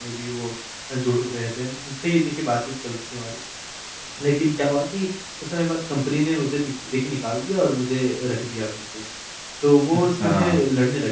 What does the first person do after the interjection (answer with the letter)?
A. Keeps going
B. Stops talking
A